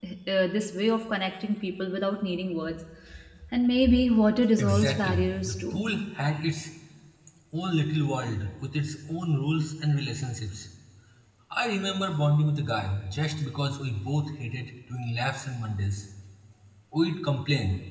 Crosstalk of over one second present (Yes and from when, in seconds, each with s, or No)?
Yes, from 4.6 s